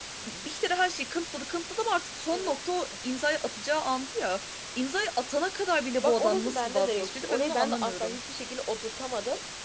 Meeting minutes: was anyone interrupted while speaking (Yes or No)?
Yes